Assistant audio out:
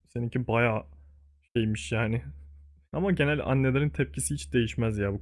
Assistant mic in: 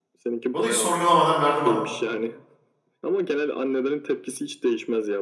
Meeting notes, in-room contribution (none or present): present